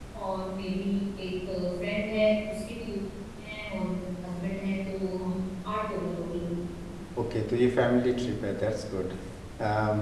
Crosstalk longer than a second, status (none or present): none